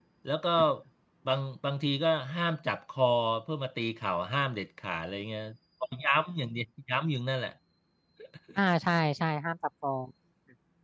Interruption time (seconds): none

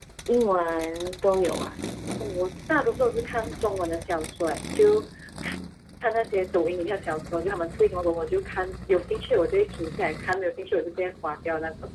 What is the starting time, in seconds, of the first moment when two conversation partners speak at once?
none

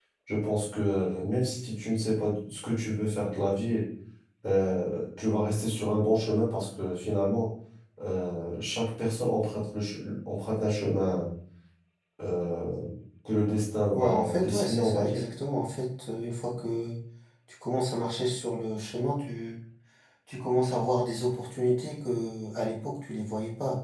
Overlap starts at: 14 s

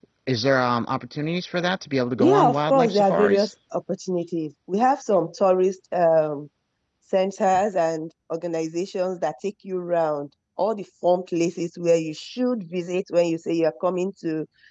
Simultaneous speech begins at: 2 s

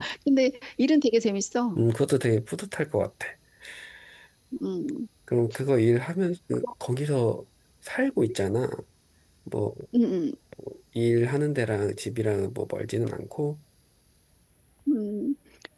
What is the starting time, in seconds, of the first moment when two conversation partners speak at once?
none

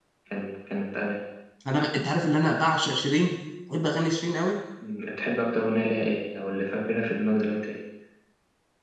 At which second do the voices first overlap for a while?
none

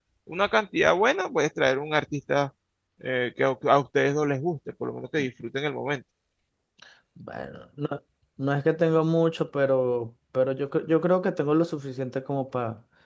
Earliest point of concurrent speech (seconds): none

